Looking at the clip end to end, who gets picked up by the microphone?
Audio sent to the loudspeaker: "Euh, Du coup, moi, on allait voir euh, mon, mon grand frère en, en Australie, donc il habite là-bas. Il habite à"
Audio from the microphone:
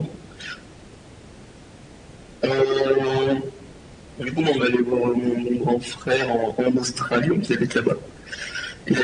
echo only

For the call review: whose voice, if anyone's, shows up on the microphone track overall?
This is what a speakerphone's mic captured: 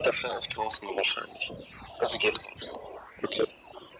echo only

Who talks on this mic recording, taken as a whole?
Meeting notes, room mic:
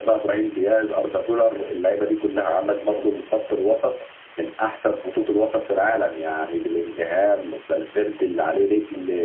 echo only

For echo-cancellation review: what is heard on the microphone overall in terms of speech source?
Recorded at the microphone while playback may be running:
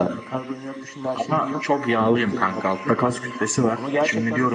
echo only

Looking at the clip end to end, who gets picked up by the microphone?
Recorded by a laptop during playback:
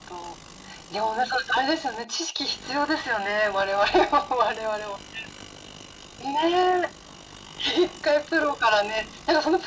echo only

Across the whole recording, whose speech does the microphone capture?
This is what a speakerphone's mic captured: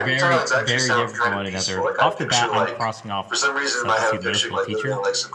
both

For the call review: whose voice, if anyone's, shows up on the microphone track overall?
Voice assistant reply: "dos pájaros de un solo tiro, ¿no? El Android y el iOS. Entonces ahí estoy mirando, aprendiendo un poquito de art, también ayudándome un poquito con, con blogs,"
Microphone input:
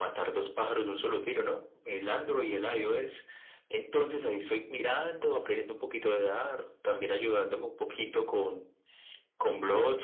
echo only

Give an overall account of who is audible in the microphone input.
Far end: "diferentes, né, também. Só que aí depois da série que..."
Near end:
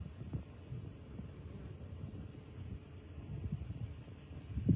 neither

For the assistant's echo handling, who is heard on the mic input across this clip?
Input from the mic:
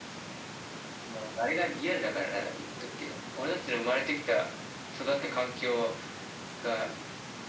echo only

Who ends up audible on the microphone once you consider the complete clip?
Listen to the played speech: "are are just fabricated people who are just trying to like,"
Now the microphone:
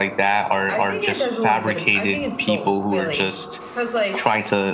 both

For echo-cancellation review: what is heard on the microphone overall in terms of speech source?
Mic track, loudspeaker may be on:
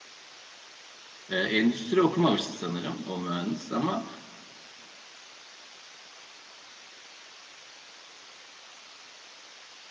user only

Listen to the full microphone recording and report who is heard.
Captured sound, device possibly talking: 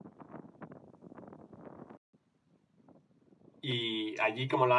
user only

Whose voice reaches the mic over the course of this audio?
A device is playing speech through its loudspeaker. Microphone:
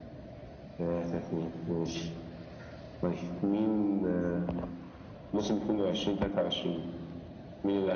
echo only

